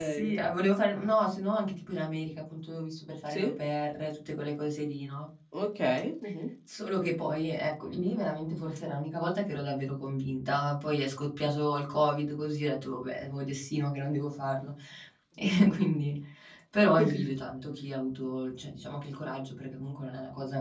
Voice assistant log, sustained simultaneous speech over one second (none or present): none